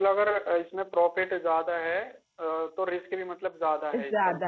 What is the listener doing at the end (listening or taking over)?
taking over